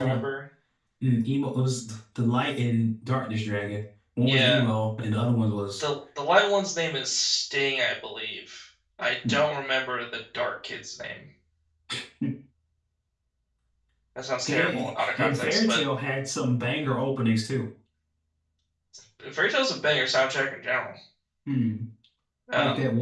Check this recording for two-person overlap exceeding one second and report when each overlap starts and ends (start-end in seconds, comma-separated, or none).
14.5-15.8